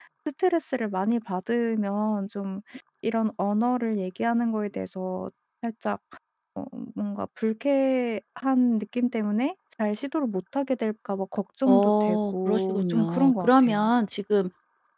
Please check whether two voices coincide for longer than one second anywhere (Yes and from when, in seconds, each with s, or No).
Yes, from 11.7 s